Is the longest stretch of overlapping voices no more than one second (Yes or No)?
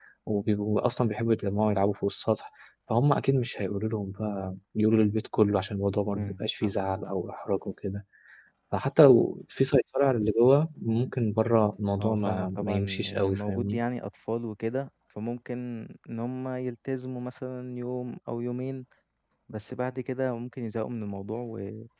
No